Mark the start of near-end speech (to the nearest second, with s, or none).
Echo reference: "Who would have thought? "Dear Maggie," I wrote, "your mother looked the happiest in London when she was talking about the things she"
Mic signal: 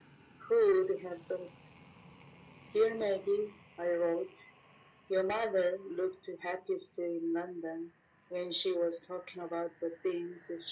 none